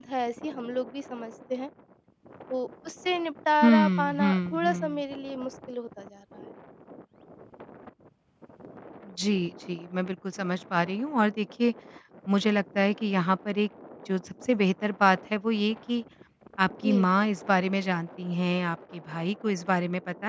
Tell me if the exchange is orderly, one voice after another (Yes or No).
No